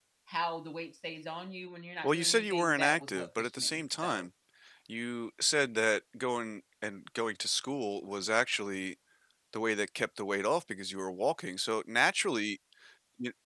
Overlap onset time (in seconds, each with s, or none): 2.0 s